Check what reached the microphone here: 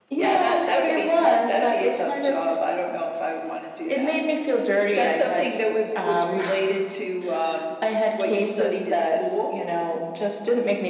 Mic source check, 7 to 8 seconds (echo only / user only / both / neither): echo only